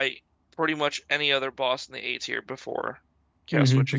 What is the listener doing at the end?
taking over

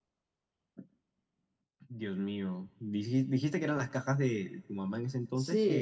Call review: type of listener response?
taking over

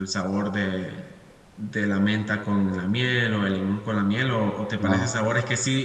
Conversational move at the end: listening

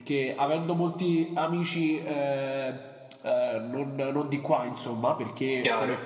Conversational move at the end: listening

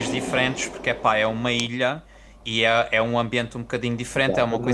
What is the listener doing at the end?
listening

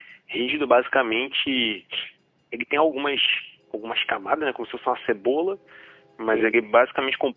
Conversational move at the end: listening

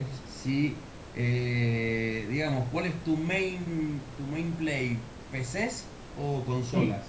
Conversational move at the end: taking over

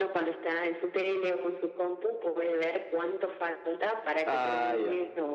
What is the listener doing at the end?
listening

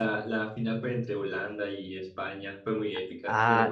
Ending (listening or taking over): taking over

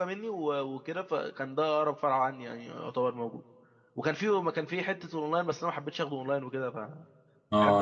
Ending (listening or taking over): taking over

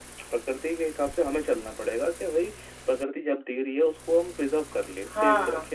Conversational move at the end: listening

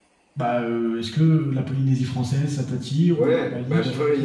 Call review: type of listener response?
taking over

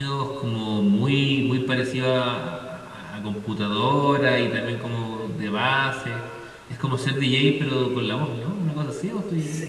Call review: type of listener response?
taking over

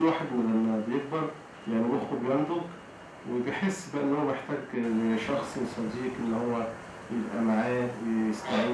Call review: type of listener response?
listening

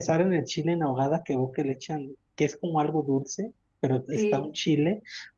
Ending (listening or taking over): listening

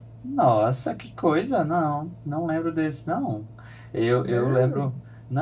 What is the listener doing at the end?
listening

